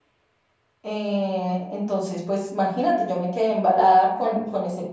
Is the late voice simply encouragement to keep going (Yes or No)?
Yes